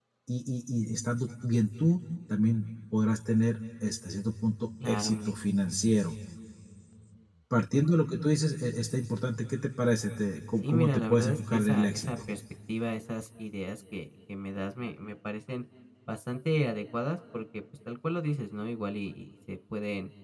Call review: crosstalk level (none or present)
present